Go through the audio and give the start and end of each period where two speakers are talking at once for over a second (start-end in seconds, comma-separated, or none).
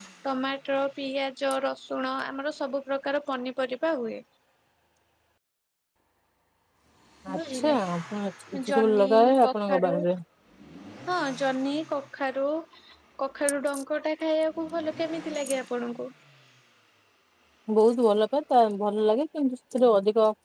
8.7-9.9